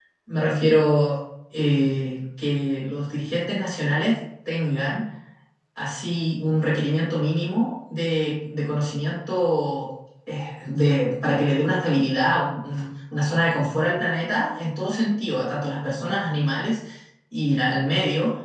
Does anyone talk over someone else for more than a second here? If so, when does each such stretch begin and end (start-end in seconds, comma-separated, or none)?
none